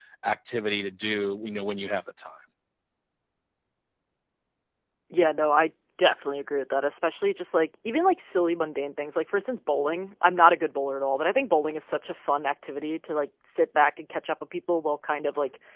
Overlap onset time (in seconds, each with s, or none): none